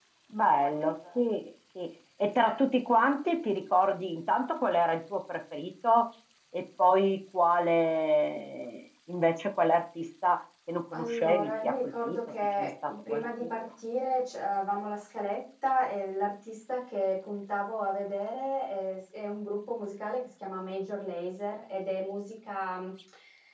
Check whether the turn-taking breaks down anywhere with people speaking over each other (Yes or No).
Yes